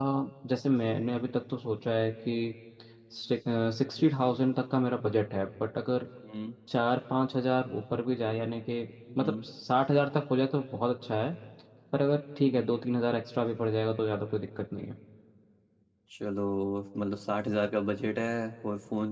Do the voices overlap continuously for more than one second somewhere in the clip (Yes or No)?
No